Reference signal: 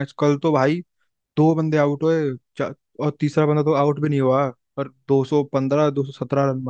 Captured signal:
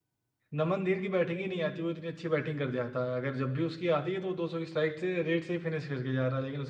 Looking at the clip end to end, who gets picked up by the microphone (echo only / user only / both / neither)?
user only